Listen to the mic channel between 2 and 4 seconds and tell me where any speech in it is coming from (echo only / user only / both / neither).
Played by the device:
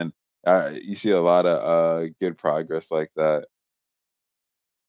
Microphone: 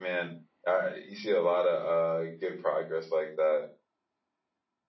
echo only